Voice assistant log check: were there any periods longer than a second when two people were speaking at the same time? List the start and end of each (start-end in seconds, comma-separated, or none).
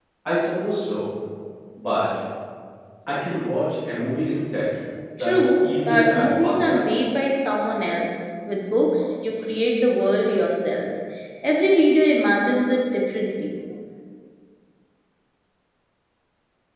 5.2-6.8